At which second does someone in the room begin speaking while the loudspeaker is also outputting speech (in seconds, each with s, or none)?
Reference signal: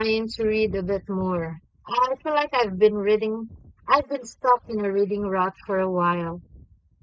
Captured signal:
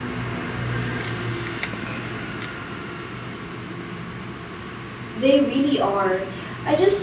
5.1 s